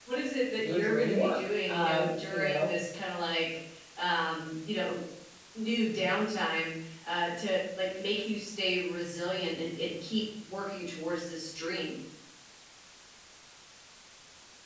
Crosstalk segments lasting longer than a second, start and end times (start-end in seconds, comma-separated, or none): 0.6-2.7